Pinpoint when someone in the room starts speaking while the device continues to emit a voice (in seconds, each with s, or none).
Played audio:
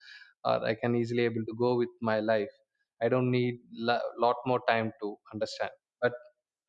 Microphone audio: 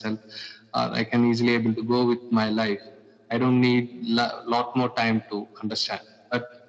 none